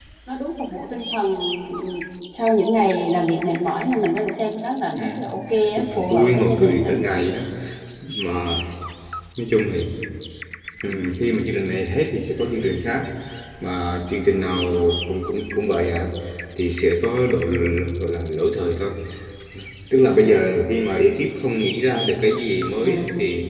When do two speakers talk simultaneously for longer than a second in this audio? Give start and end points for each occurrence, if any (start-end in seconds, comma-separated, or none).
5.8-7.0